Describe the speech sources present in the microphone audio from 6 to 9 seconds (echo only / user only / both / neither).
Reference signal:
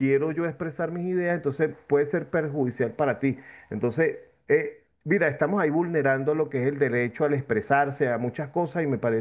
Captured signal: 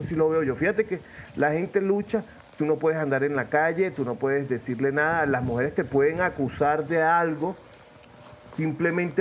user only